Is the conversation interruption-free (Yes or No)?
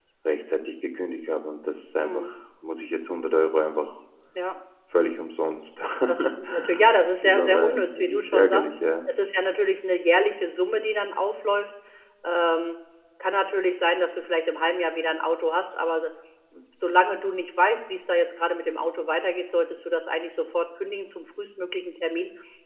No